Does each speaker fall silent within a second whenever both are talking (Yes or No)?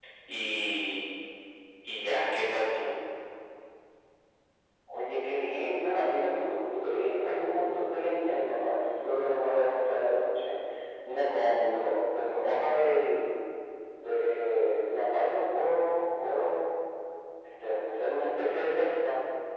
Yes